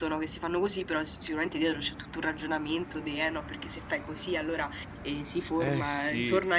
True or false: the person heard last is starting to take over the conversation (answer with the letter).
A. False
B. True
A